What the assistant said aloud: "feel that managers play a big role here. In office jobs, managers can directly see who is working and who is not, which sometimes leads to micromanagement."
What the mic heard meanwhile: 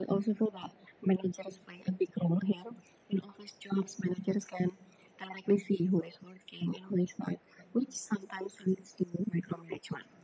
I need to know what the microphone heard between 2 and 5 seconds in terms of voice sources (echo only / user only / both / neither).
echo only